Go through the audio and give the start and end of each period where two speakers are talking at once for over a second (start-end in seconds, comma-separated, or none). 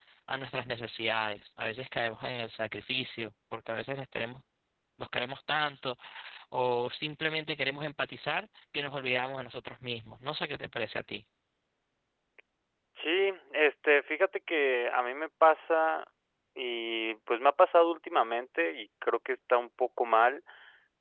none